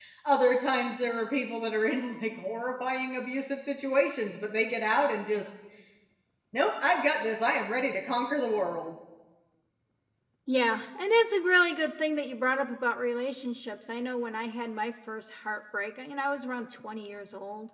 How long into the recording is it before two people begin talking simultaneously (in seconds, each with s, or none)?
none